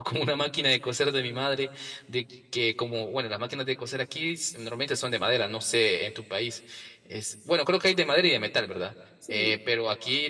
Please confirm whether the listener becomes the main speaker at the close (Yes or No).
No